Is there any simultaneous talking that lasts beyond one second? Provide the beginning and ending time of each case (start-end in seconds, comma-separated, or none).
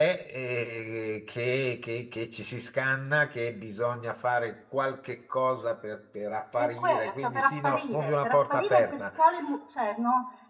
6.6-9.0